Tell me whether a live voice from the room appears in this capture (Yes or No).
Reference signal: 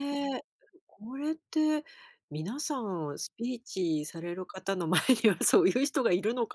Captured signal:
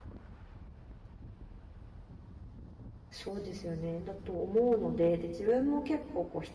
Yes